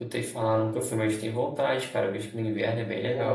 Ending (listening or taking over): taking over